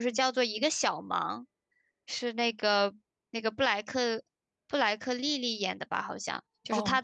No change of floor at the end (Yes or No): Yes